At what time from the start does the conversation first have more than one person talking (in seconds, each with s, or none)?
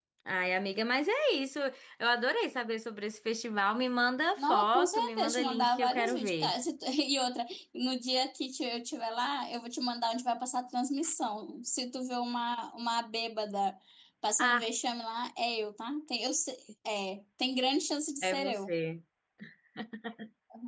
4.4 s